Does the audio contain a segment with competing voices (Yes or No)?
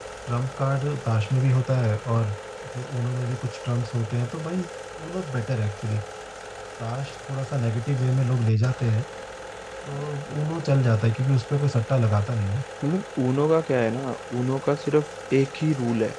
No